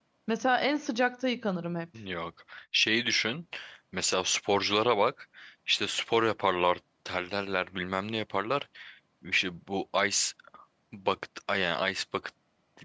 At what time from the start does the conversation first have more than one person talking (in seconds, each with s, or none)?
none